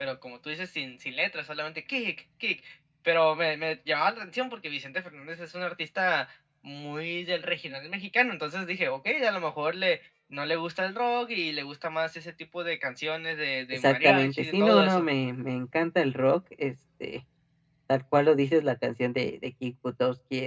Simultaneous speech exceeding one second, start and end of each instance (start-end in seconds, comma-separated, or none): 13.7-15.1